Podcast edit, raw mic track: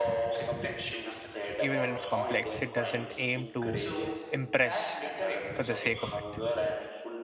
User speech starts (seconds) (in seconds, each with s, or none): 1.6 s